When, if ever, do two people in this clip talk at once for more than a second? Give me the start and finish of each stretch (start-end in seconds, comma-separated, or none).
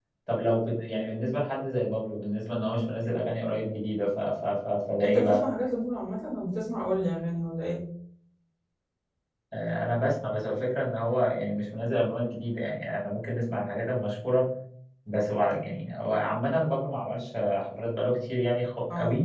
none